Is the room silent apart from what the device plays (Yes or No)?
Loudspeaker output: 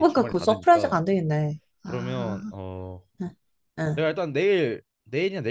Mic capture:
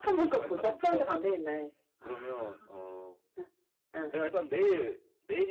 Yes